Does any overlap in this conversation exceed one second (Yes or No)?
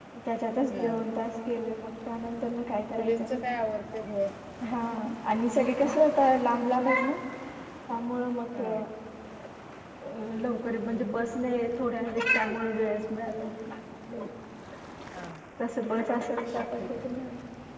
No